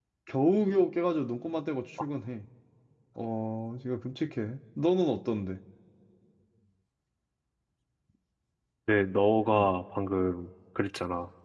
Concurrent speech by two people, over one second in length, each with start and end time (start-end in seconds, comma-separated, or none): none